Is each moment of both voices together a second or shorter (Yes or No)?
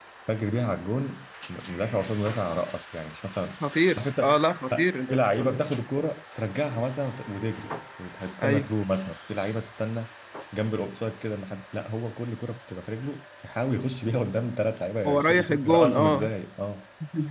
No